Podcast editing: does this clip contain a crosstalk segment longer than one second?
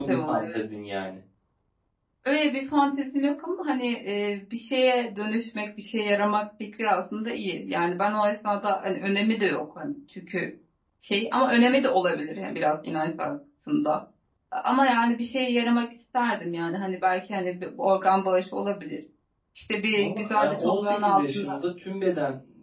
Yes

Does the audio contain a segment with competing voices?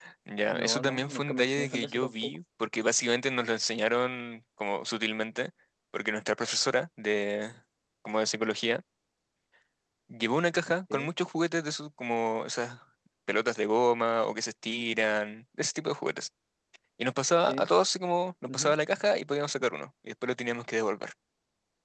Yes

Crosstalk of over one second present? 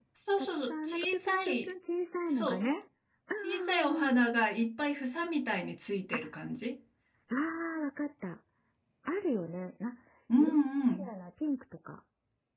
Yes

